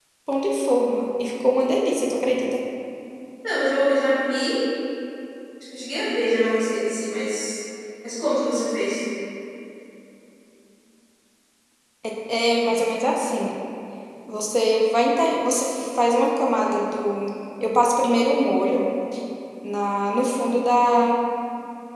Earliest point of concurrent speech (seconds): none

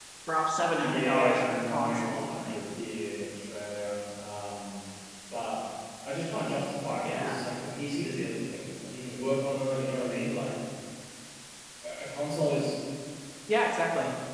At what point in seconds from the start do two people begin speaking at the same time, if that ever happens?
0.8 s

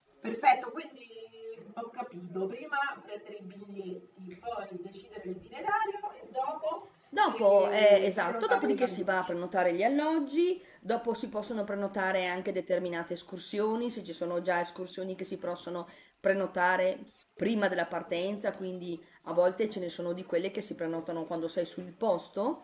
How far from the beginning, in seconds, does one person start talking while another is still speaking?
7.2 s

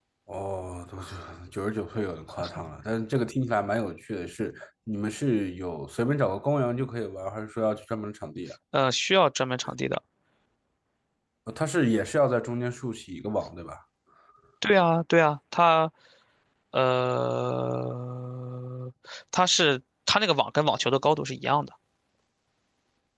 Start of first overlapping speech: none

